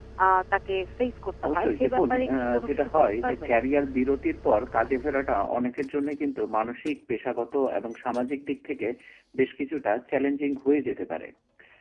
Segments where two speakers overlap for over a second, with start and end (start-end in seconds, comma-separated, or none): 1.5-3.5